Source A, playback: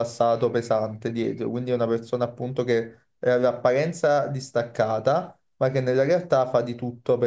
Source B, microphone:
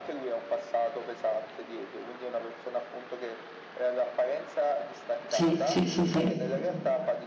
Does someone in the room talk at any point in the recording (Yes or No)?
Yes